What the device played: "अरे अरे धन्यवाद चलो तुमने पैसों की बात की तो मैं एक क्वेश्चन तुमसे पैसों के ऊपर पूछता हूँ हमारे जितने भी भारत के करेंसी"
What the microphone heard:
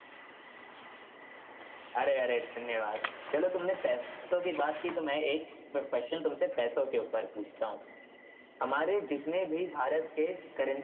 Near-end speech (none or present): none